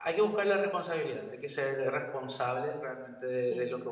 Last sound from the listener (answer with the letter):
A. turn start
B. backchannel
A